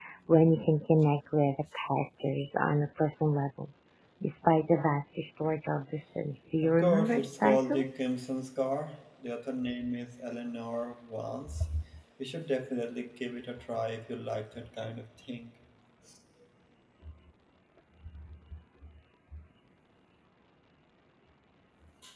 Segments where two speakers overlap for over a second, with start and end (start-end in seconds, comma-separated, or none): 6.6-7.8